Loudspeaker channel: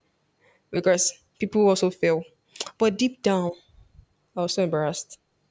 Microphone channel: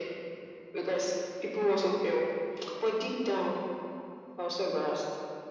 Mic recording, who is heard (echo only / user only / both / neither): echo only